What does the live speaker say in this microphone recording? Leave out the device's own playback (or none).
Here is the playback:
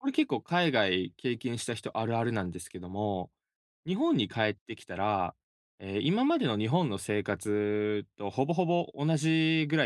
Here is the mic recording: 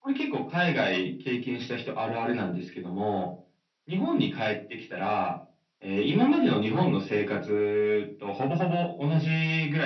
none